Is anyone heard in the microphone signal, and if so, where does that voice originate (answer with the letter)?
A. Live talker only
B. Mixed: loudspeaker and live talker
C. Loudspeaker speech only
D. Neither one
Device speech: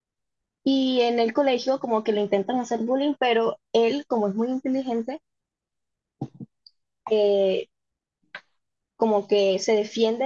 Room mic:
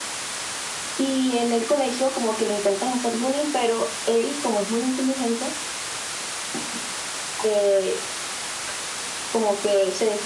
C